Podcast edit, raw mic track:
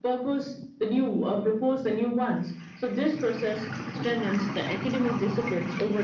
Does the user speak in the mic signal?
No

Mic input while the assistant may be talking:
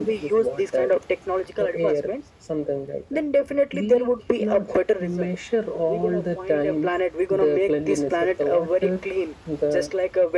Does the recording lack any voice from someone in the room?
Yes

